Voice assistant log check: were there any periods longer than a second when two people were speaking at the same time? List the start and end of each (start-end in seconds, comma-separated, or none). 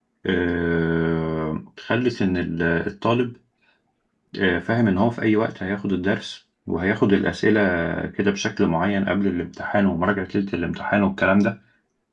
none